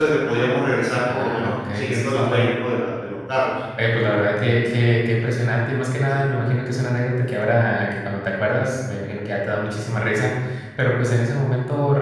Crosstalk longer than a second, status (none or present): present